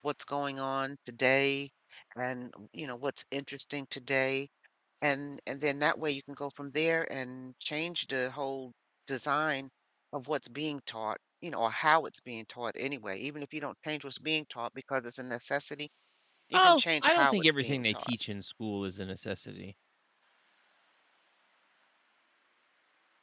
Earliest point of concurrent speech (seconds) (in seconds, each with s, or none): 16.5 s